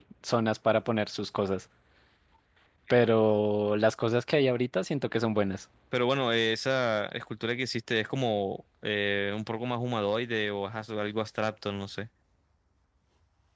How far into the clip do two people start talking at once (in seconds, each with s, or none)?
none